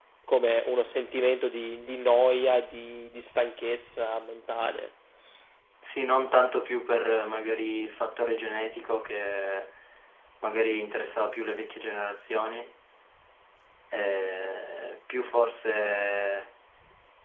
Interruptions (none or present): none